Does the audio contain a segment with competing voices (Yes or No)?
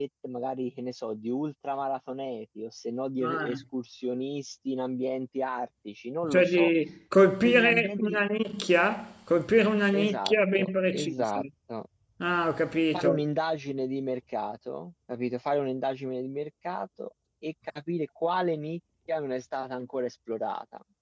Yes